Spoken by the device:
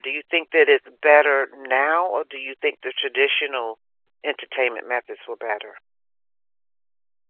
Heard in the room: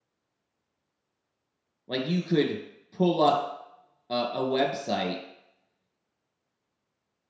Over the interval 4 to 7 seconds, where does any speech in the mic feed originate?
user only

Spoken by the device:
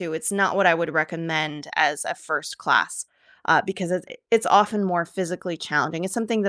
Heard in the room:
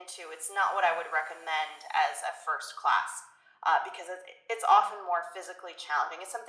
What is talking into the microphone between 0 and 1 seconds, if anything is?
echo only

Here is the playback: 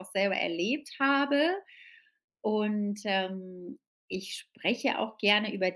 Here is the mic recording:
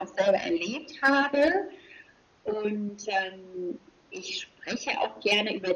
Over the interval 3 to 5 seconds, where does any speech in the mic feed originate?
echo only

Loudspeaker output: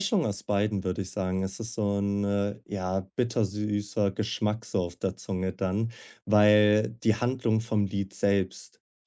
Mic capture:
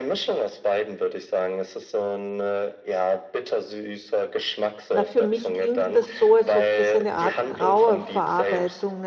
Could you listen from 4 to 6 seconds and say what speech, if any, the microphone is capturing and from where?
both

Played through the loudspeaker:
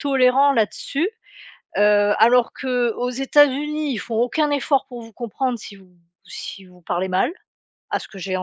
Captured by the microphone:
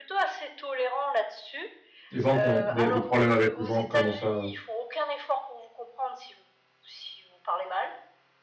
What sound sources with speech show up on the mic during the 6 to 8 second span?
echo only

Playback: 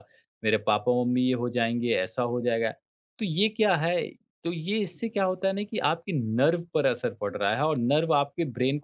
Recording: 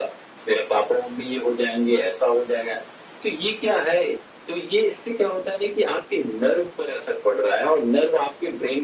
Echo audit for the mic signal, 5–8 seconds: echo only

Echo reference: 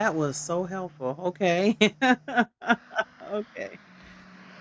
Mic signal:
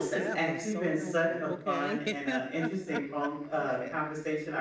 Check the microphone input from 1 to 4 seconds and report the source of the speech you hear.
both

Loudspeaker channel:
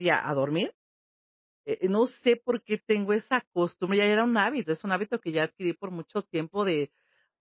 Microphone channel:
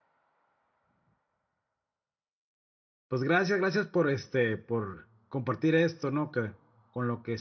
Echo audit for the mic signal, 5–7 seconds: user only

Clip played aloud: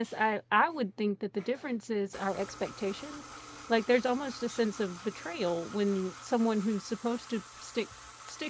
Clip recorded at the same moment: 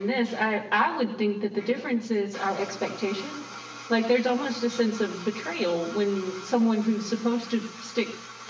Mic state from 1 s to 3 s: echo only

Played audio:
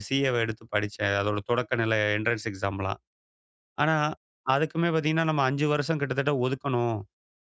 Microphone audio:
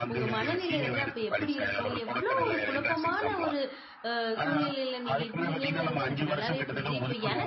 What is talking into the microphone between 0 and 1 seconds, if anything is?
both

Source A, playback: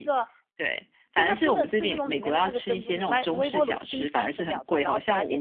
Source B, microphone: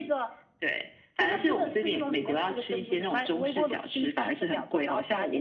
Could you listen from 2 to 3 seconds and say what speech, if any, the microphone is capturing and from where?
echo only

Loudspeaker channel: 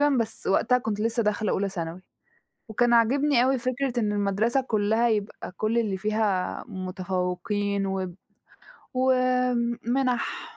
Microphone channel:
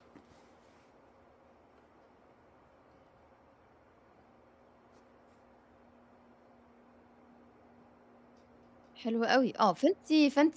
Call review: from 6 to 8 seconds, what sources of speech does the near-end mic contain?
neither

